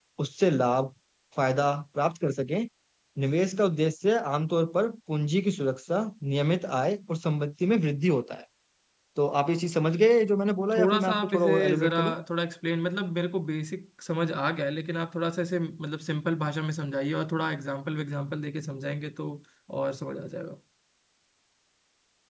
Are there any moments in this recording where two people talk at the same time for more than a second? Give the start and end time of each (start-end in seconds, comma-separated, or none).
10.8-12.1